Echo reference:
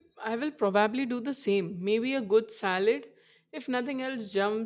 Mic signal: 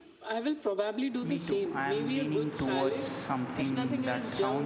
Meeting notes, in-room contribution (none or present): present